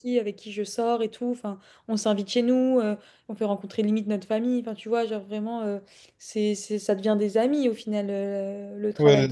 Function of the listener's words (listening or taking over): taking over